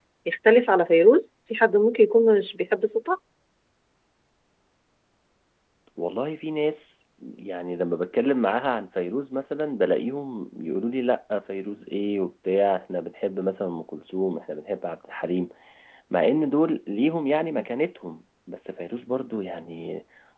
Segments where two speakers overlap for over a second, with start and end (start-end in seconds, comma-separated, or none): none